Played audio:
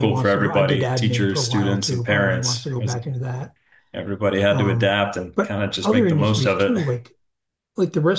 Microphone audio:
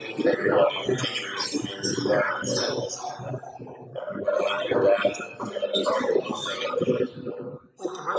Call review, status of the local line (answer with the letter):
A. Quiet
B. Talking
A